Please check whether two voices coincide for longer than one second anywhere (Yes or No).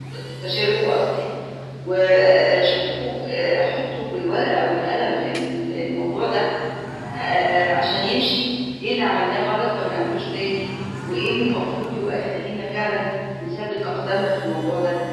No